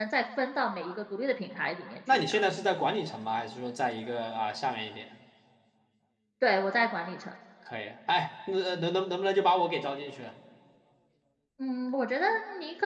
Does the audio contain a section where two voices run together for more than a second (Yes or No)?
No